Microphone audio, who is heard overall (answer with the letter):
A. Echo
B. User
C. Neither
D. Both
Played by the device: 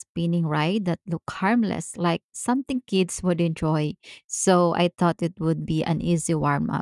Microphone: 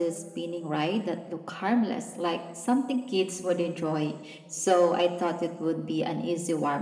A